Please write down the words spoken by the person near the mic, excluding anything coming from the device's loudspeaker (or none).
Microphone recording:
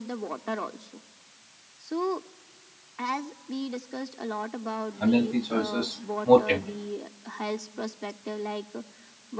unhealthy choices more tempting.